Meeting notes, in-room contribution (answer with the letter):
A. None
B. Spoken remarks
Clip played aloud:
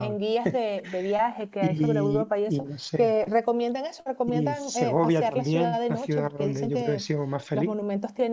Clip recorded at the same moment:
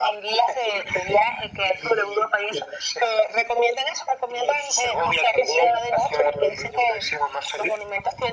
A